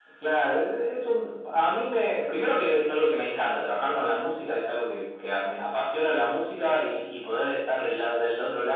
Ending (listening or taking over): listening